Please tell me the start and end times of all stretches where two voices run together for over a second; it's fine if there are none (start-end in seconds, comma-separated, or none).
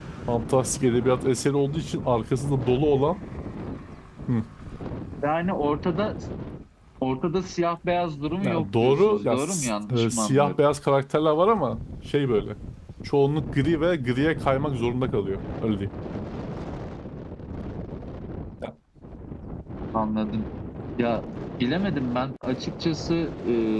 8.4-10.6